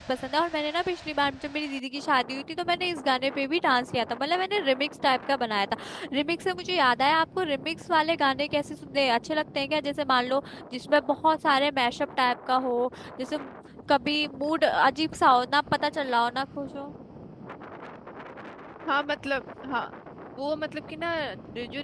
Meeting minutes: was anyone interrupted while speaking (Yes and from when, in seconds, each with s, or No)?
No